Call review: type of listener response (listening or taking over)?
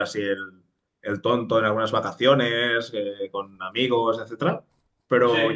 listening